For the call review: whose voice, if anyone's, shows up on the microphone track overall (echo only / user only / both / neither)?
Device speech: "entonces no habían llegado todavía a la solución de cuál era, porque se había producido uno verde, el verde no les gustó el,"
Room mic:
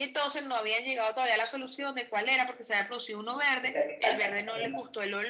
both